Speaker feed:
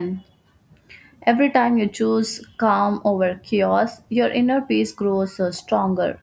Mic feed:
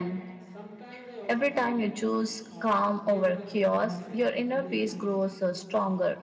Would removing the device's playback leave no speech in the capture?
No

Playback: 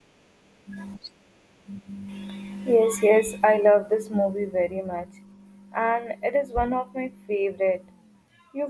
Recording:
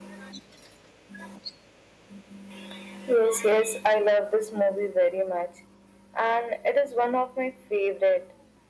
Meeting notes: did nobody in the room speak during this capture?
Yes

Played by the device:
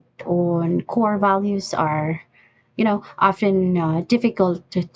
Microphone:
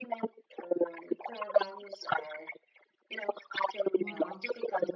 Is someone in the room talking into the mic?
Yes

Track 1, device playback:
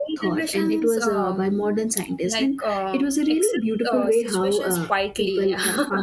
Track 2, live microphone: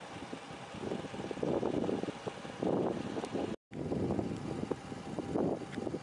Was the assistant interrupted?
No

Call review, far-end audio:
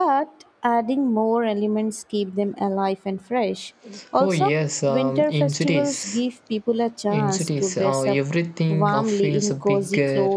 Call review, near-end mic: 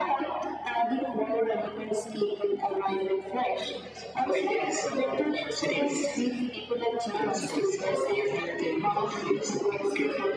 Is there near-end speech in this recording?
No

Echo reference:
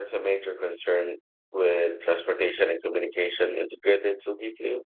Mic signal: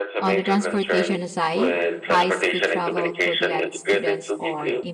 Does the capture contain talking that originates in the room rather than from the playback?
Yes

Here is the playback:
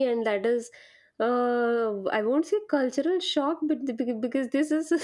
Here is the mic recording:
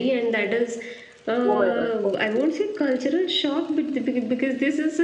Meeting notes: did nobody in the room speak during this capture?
No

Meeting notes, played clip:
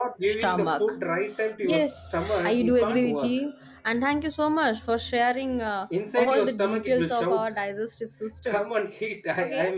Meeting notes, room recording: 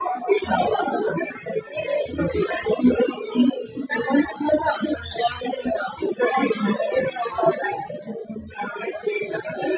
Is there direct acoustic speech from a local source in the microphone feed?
No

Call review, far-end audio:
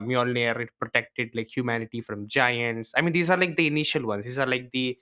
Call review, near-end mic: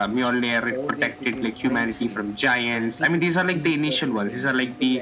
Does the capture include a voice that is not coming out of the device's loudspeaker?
Yes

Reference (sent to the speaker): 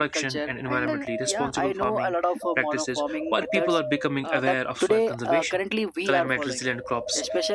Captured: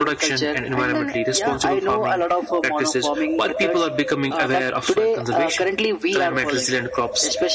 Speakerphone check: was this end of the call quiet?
Yes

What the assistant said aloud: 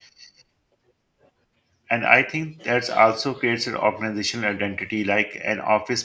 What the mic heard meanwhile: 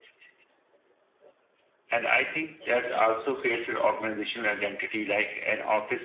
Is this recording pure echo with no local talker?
Yes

